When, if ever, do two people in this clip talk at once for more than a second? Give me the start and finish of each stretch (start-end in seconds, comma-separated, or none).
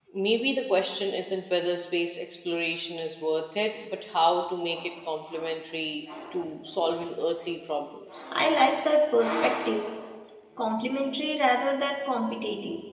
none